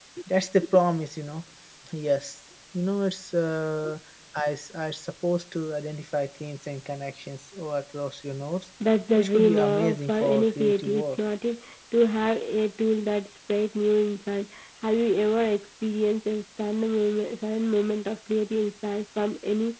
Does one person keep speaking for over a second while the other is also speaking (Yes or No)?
Yes